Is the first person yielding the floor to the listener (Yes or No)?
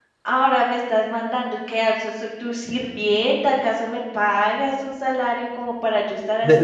Yes